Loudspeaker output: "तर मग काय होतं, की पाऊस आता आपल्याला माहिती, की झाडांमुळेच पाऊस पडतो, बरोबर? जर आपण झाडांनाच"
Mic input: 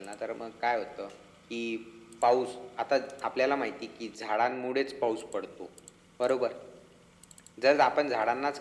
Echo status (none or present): present